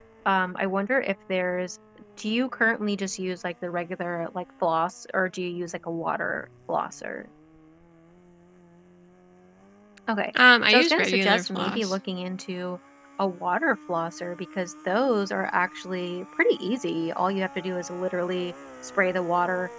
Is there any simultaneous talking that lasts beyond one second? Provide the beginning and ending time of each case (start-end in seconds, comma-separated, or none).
10.7-12.0